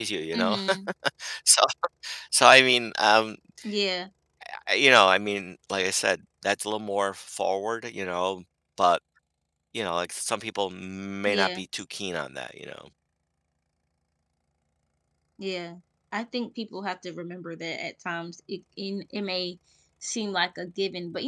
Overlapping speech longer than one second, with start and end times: none

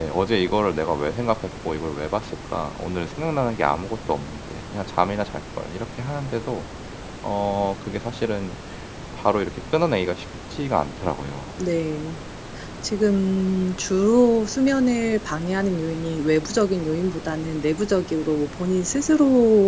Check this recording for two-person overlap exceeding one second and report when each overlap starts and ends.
none

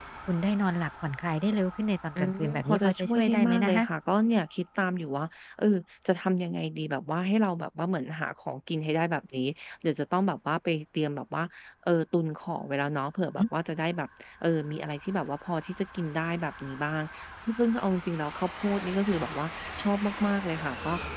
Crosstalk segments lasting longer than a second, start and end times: 2.2-3.8

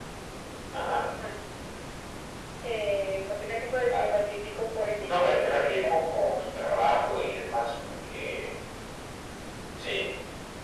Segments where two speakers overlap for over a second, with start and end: 5.0-7.0

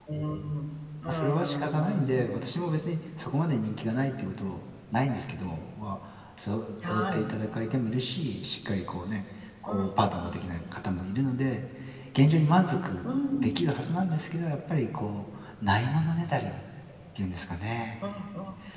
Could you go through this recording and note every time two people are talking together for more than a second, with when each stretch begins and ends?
1.1-2.4

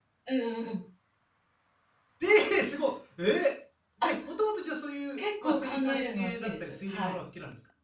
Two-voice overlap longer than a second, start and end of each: 5.2-7.2

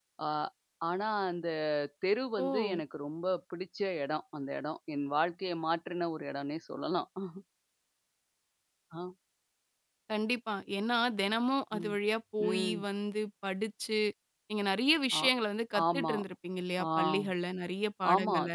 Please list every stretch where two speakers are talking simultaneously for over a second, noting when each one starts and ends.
none

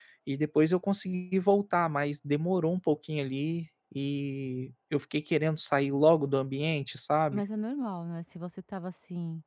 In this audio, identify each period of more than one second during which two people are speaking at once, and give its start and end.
none

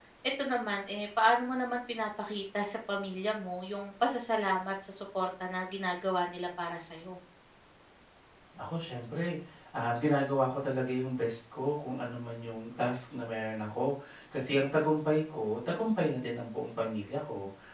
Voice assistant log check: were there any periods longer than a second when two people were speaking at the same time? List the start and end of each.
none

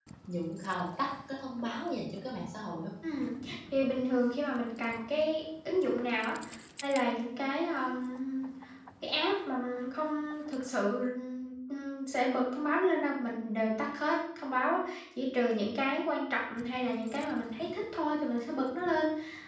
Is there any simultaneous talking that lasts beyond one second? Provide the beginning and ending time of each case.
none

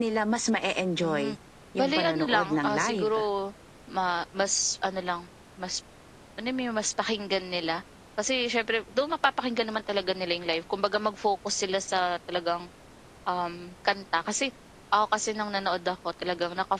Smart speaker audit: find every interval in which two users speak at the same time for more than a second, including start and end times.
1.8-3.1

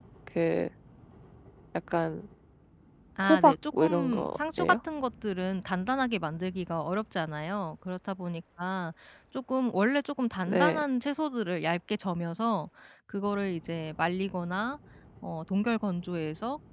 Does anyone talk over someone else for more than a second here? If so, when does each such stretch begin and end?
3.3-4.8

